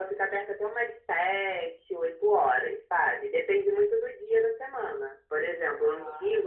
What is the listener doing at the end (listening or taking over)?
listening